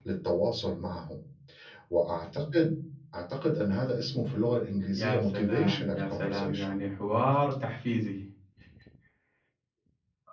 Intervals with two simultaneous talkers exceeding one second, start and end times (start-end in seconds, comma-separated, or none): 5.0-6.7